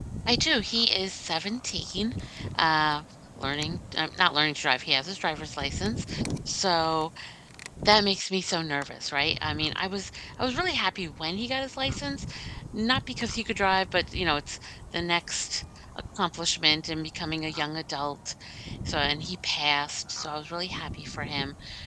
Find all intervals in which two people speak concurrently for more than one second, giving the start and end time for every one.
none

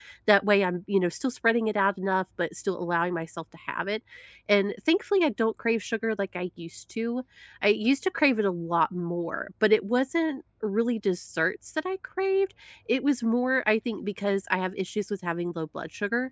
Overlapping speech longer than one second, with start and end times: none

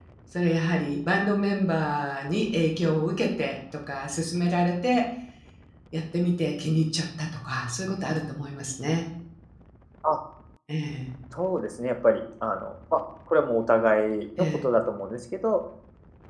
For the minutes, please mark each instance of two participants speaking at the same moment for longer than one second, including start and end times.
none

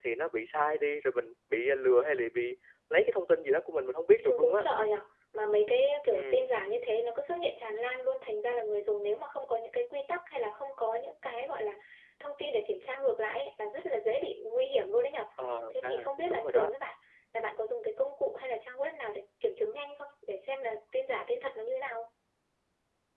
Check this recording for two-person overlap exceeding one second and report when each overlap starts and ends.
none

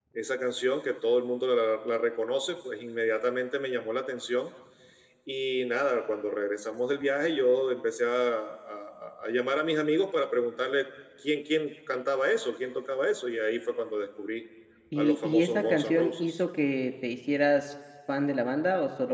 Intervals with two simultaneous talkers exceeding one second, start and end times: 14.9-16.4

